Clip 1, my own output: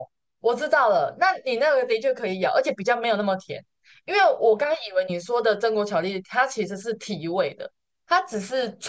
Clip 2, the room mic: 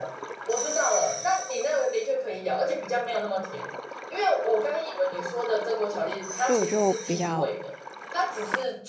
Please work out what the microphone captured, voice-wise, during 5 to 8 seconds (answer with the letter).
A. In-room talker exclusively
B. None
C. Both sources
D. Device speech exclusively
C